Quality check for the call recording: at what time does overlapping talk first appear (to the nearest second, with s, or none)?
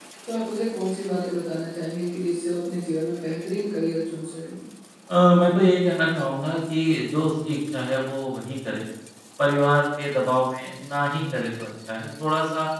none